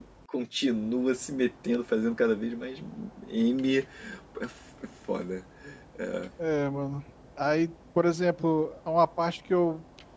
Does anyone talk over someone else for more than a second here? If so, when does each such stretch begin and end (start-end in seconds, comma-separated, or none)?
none